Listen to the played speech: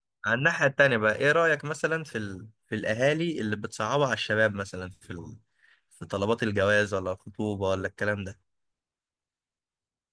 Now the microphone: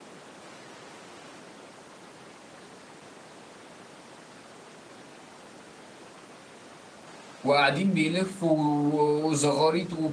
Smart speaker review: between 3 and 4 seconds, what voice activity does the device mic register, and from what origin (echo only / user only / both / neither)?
neither